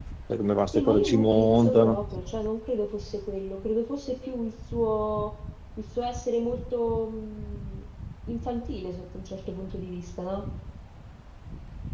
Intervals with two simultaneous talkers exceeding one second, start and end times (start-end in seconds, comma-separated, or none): 0.7-2.0